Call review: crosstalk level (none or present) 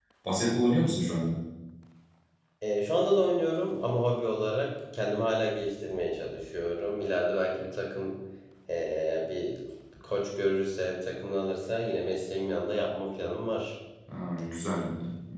none